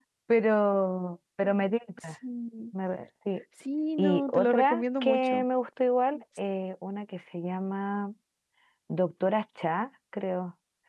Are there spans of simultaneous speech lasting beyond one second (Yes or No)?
Yes